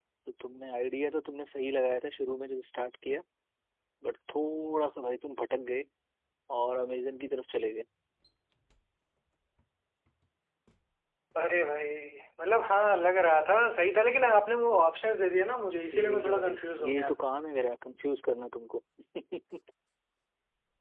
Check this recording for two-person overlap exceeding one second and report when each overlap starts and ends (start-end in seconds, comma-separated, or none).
15.8-17.1